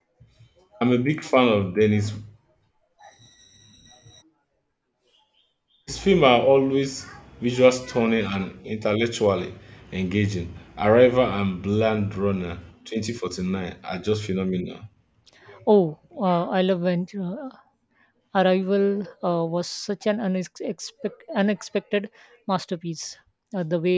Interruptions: none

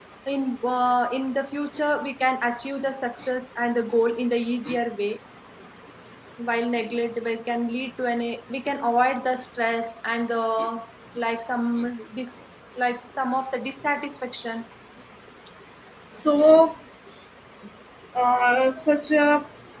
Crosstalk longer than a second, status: none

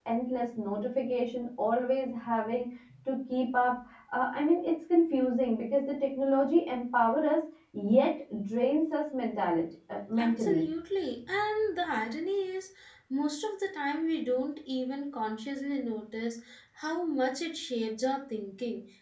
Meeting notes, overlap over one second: none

